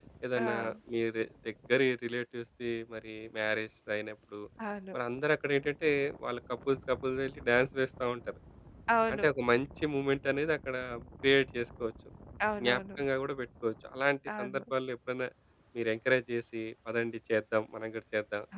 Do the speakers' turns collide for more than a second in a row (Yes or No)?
No